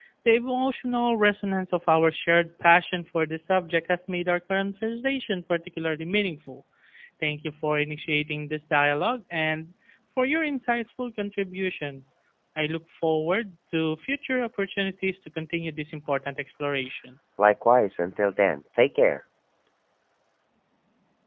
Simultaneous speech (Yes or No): No